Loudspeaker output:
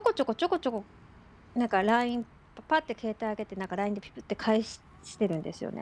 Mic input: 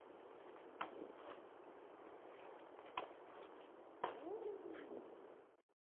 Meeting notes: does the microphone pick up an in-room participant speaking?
No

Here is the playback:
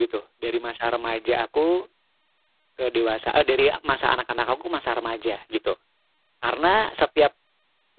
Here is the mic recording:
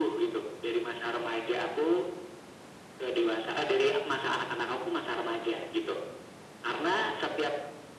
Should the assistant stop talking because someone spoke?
No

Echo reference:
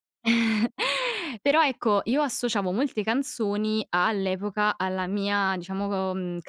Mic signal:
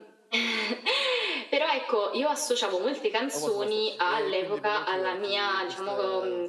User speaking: Yes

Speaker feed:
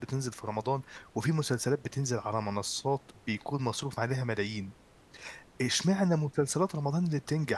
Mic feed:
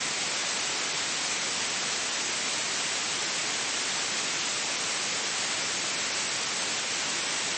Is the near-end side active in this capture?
No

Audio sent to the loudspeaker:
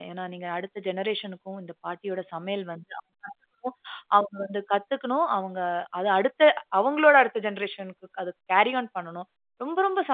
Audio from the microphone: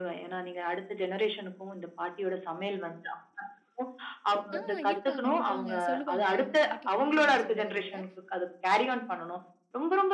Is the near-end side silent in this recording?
No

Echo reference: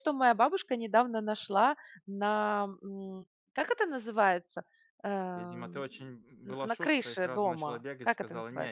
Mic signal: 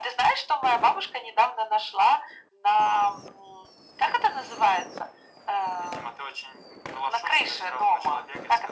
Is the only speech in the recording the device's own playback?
Yes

